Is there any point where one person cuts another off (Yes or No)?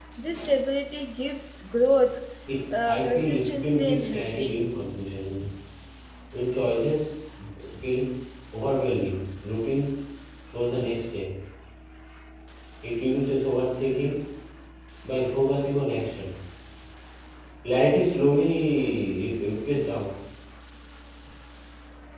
Yes